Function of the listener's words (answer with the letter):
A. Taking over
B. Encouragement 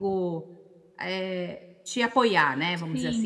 A